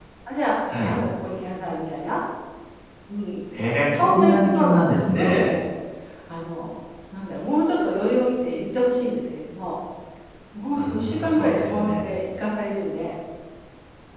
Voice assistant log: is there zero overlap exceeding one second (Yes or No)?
No